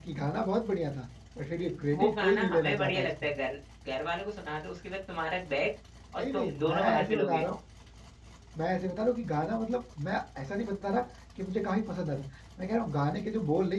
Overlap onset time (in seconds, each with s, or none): 1.9 s